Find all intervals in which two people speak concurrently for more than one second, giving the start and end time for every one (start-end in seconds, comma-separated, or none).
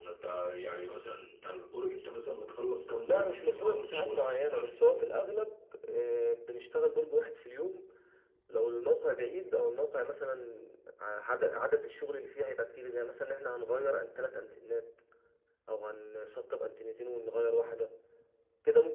3.0-5.1